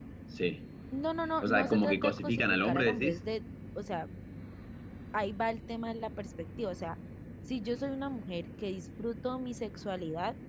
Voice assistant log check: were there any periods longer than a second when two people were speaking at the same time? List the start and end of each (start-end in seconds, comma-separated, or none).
1.4-3.2